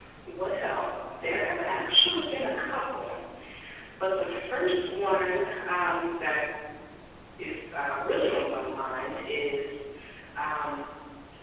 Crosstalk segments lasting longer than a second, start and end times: none

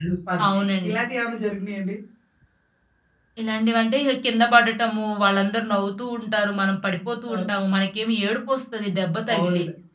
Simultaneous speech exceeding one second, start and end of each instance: none

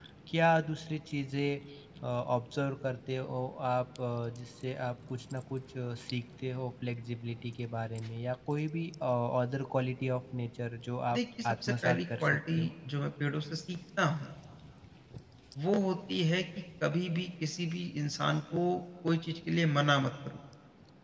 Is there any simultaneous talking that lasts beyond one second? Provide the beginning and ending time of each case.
11.1-12.6

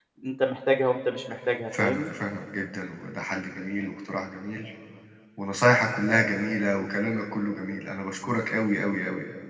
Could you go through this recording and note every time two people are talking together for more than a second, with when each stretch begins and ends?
none

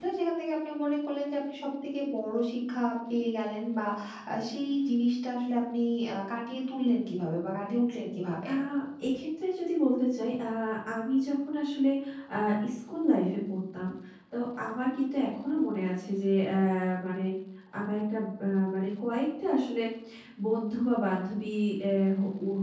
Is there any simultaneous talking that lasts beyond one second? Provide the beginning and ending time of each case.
none

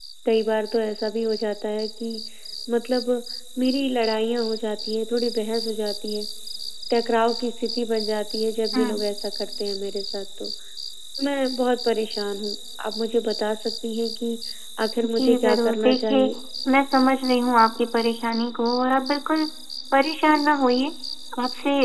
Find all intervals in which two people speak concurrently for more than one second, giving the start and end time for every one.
15.1-16.3

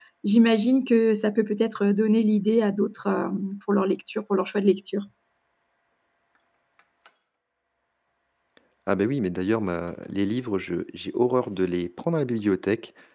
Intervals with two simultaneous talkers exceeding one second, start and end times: none

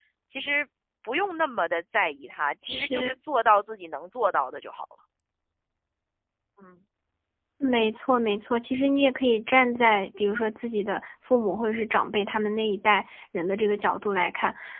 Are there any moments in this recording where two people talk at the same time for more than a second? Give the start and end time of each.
none

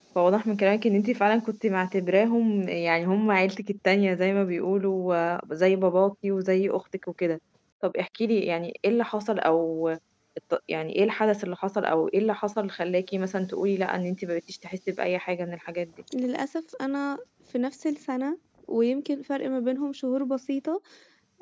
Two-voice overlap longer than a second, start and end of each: none

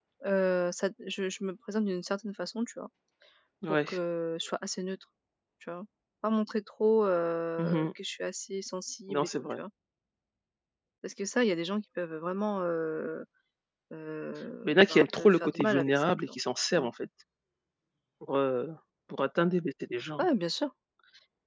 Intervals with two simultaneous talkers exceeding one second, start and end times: 14.6-16.1

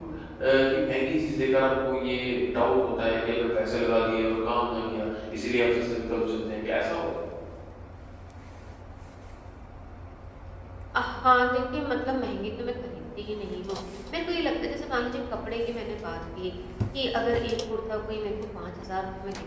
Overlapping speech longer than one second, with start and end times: none

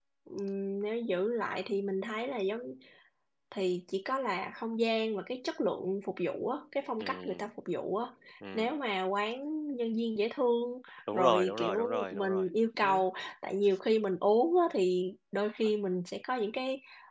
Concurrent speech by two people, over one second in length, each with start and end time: 11.1-12.5

